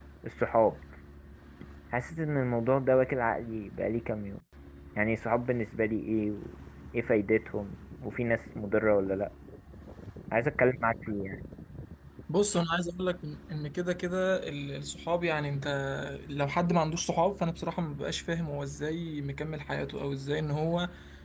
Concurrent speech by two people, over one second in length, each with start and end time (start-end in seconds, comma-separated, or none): none